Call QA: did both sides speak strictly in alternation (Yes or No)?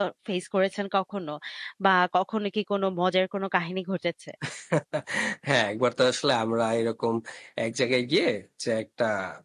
Yes